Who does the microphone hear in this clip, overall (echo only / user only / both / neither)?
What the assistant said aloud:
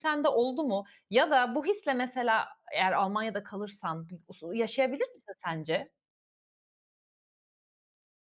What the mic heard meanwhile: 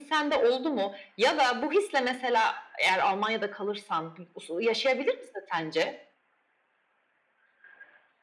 echo only